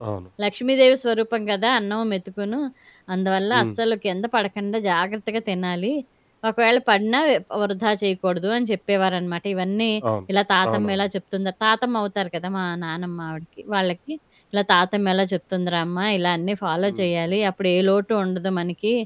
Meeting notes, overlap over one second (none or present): none